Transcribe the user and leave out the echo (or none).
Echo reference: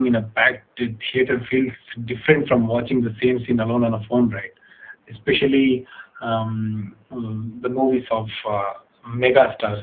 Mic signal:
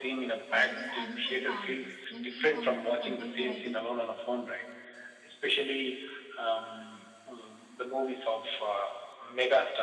uh, it is ideal for the families. Then we come to content variety.